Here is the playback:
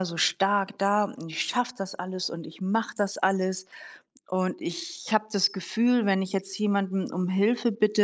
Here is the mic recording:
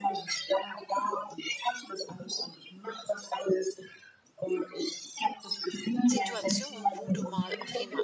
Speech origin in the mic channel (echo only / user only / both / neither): both